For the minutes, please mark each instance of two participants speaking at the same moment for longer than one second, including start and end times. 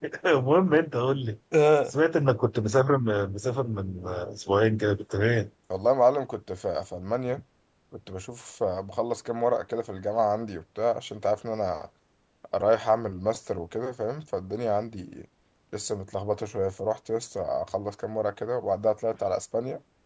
none

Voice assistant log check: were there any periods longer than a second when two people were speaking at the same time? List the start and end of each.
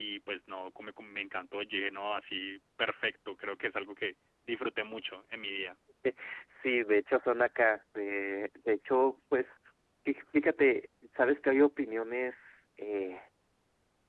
none

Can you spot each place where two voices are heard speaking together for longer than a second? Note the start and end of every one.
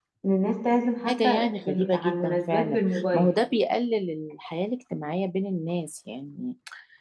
1.1-3.3

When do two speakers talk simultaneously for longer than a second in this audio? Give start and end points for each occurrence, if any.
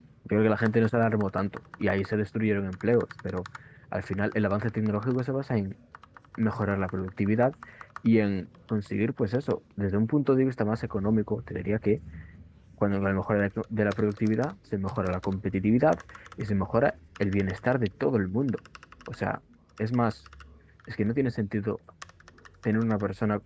none

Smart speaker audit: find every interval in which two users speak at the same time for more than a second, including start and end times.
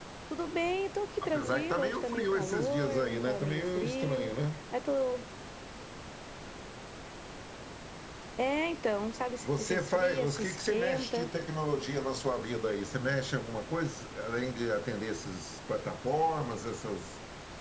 1.2-4.3, 9.4-11.3

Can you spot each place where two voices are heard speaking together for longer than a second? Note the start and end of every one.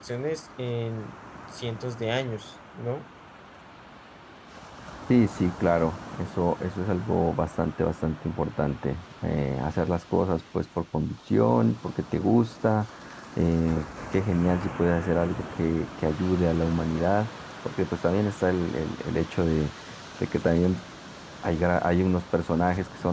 none

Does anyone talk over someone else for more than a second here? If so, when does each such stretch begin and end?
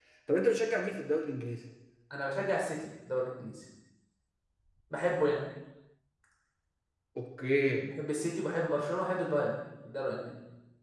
none

